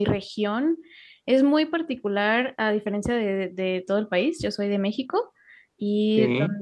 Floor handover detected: No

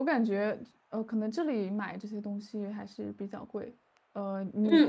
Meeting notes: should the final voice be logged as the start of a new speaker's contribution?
Yes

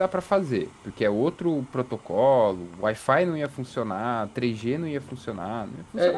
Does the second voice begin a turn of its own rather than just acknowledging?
Yes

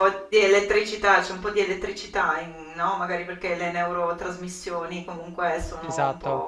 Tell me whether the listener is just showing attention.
Yes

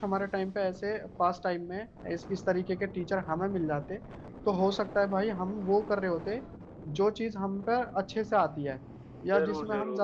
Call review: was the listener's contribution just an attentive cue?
No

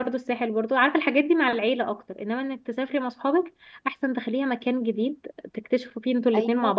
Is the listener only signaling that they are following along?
No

